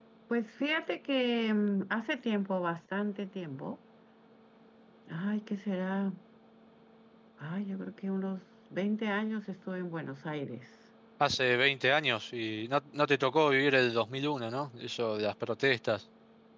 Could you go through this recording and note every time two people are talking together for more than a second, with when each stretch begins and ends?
none

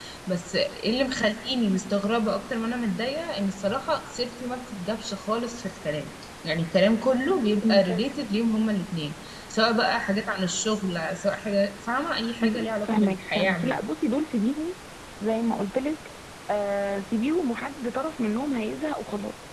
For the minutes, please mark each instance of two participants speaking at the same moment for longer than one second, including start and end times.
12.4-13.8

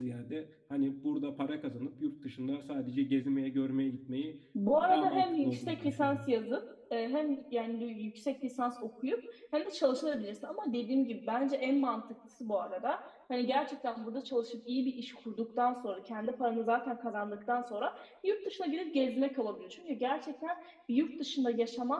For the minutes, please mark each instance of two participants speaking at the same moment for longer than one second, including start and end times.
4.7-6.2

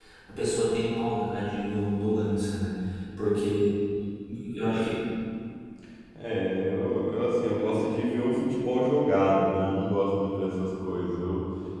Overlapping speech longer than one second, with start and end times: none

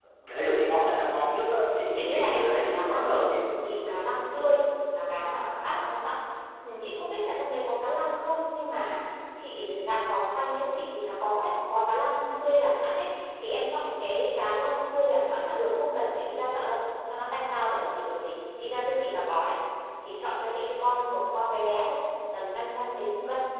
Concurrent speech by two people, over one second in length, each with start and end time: 1.9-3.2

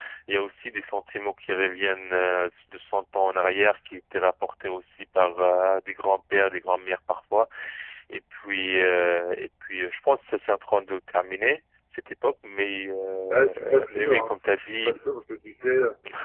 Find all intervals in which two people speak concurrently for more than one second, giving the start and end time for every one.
13.3-15.0

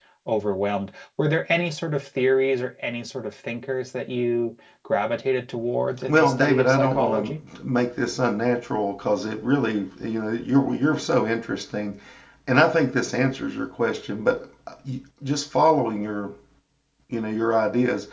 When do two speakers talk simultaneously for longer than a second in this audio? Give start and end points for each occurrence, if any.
6.1-7.3

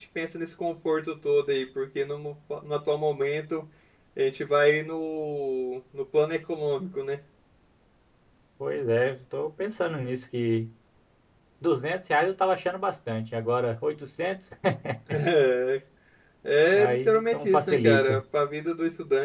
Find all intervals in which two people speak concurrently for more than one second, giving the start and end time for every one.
16.7-18.2

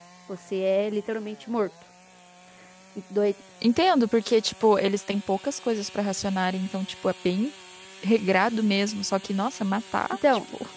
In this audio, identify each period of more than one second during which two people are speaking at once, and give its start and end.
none

